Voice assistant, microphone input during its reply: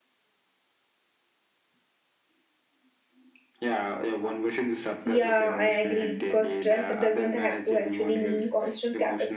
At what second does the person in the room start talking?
5.0 s

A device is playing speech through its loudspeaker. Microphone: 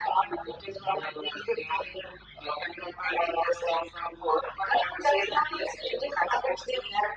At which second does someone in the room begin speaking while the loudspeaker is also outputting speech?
none

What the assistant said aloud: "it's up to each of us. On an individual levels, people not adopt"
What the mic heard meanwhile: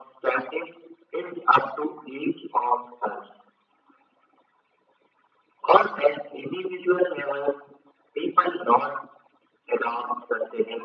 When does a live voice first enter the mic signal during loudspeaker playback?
none

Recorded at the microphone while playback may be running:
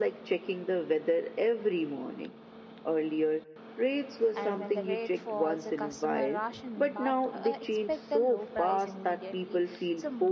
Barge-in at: 4.3 s

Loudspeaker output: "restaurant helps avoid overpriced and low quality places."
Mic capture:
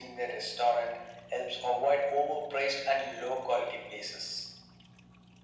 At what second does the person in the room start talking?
none

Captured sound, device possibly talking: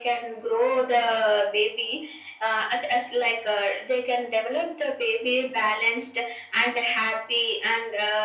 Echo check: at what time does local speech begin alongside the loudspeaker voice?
none

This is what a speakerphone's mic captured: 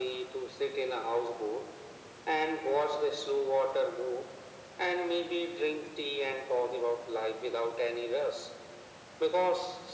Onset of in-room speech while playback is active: none

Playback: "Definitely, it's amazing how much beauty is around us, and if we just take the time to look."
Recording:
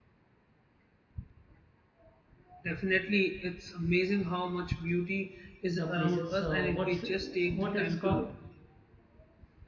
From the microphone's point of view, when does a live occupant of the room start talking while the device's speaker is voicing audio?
5.8 s

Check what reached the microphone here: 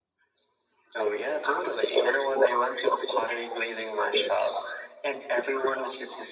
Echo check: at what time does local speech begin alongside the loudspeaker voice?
none

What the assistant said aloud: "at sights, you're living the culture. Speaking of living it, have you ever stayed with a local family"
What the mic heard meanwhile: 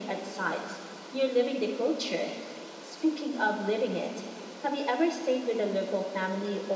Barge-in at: none

